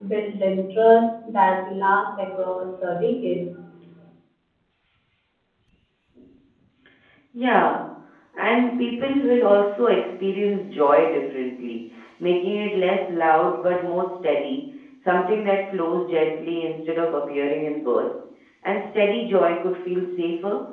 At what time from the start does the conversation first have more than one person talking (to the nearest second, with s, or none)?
none